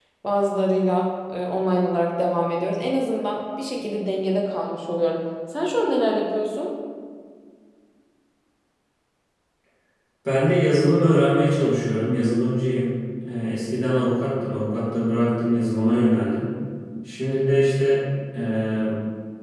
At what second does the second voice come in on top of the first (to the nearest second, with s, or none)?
none